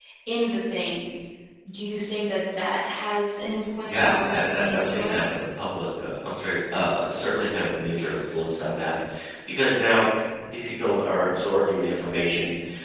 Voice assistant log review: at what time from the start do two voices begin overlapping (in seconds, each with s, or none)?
3.8 s